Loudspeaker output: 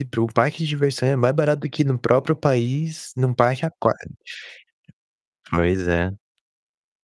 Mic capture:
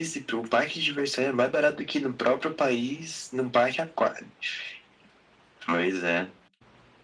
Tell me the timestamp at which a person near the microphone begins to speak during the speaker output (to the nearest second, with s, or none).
none